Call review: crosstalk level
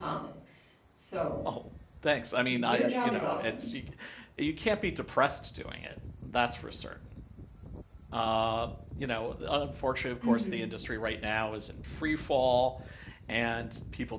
present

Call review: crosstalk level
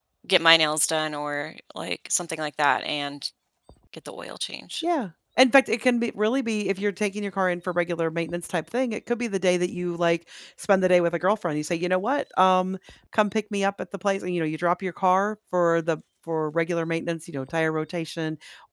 none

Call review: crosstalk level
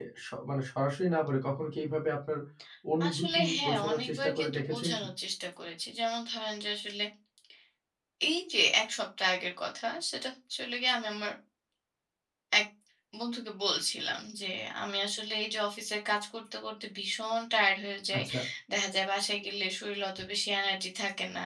present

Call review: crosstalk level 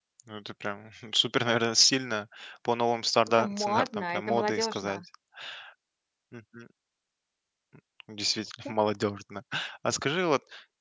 present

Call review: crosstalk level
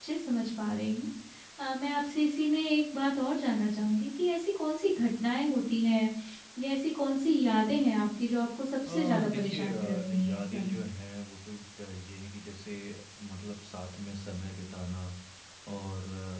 present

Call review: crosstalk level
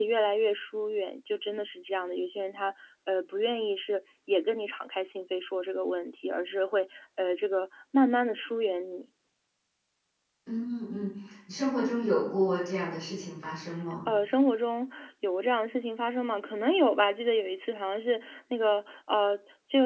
none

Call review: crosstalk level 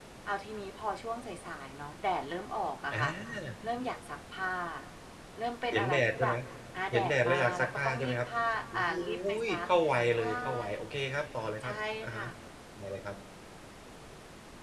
present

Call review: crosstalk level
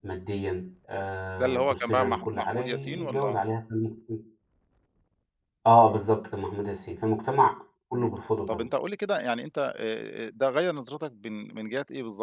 present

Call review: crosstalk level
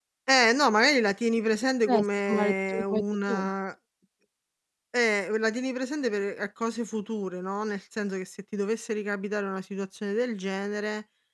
present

